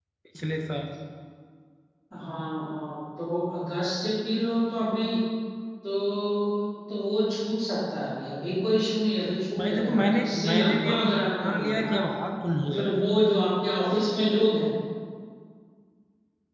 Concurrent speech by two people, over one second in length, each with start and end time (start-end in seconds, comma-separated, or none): 9.6-11.9